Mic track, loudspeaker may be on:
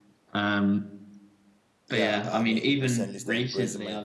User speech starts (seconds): 2 s

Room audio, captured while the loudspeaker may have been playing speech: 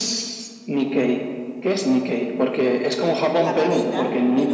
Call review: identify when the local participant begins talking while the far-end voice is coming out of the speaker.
3 s

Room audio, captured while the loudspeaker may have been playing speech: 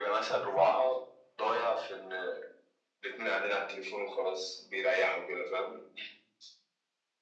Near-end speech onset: 0 s

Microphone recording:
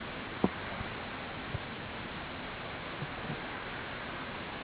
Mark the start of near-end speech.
none

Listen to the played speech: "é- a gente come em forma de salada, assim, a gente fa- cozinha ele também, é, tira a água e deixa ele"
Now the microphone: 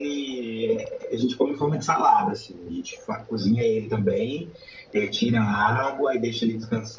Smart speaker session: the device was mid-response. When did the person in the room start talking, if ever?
none

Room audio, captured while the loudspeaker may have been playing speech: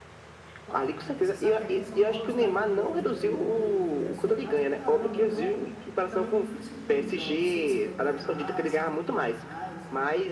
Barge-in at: 1 s

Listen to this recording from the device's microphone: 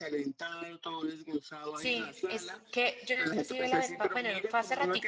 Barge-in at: 2 s

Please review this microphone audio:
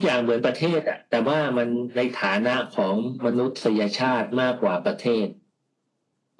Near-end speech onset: none

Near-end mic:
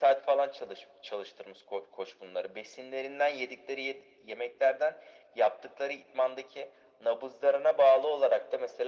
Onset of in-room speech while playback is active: none

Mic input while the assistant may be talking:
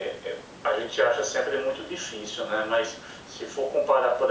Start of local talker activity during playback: none

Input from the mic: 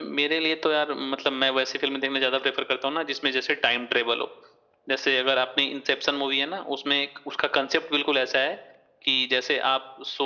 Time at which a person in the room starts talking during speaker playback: none

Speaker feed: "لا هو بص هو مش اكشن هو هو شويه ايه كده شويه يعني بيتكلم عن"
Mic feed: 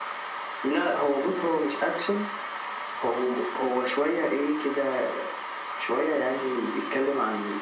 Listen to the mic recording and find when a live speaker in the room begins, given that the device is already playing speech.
none

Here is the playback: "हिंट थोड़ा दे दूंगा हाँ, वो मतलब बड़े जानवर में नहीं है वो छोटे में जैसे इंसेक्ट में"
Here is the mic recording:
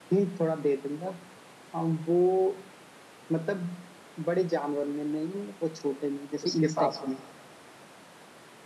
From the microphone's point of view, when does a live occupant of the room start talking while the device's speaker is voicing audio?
6 s

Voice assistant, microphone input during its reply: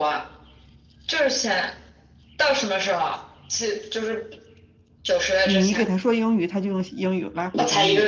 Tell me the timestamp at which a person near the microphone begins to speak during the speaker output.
5 s

